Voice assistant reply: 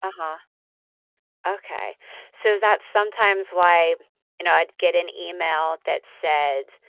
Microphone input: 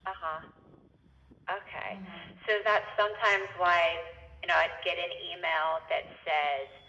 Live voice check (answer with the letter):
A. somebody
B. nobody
A